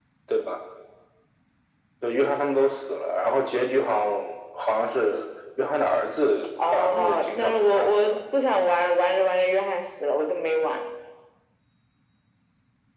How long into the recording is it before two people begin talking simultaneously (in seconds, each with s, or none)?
6.6 s